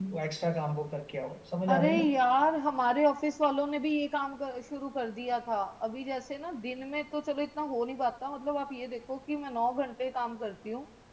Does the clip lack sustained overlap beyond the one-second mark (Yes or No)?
Yes